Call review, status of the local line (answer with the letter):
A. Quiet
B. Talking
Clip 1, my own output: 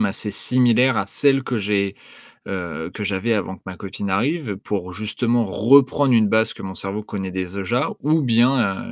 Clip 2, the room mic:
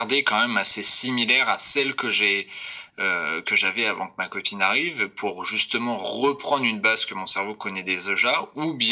A